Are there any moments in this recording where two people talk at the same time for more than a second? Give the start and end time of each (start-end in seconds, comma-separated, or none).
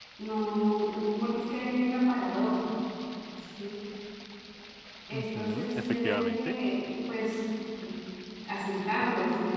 5.1-6.6